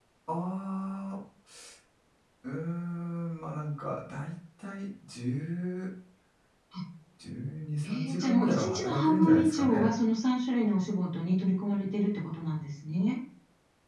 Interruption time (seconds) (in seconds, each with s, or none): 7.8 s